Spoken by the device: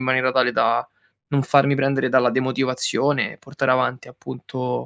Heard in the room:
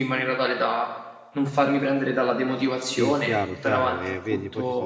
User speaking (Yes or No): Yes